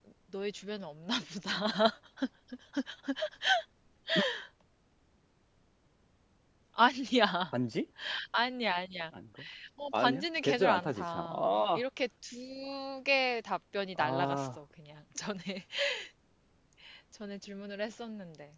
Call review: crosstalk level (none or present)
present